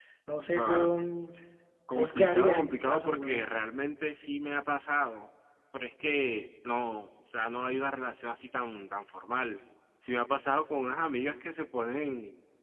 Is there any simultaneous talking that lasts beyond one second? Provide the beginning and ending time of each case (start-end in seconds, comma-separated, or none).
1.9-3.5